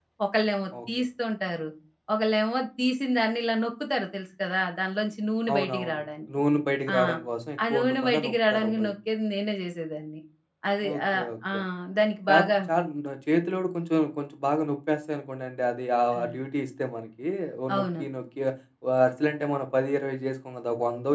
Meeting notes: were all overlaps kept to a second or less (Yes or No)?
No